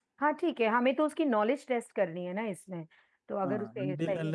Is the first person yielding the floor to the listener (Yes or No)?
Yes